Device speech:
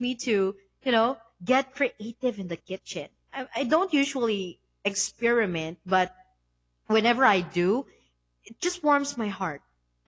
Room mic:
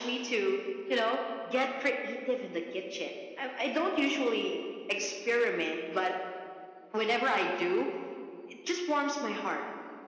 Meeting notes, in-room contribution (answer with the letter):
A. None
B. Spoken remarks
A